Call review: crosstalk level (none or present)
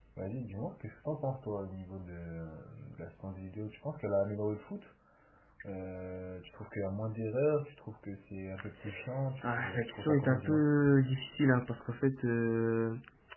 present